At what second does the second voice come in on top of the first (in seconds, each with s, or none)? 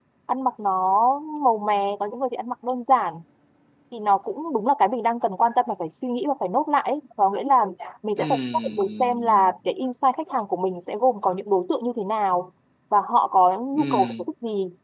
8.2 s